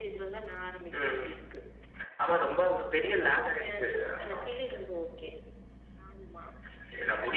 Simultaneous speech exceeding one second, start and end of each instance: 3.1-4.4

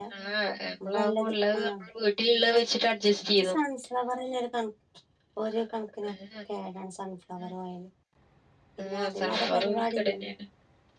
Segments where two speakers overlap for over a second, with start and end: 8.8-10.3

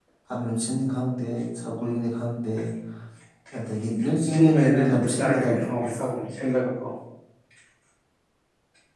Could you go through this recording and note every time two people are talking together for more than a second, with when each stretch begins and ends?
4.3-6.0

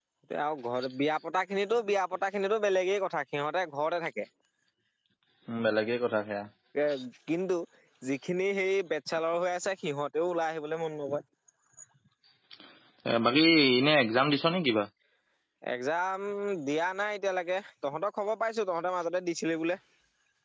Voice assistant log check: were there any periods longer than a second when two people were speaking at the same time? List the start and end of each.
none

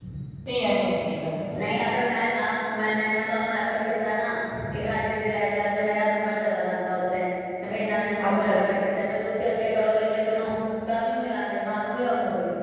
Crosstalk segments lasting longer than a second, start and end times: none

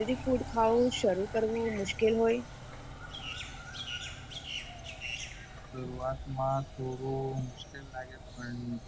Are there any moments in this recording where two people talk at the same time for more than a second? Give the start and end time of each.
none

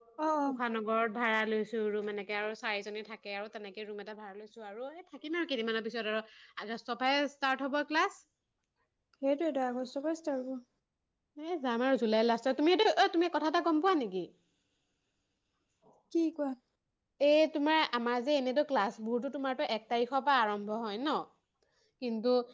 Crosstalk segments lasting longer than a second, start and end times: none

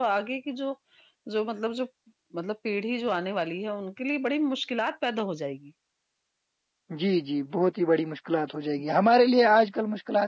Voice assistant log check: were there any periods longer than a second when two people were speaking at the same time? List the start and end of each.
none

